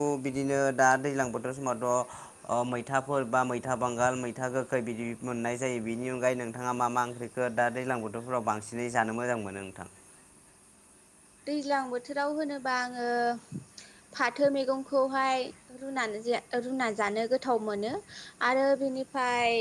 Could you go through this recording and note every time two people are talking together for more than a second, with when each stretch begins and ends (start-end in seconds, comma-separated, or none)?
none